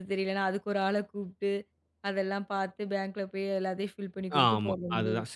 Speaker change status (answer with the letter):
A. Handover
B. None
A